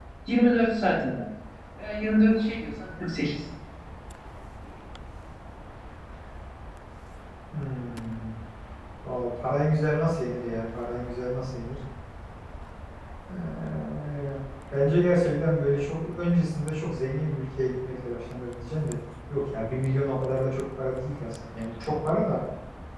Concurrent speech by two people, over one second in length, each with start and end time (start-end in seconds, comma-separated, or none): none